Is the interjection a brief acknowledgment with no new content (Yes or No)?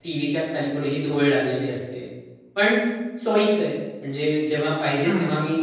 Yes